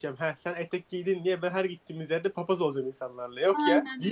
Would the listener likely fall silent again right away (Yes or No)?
No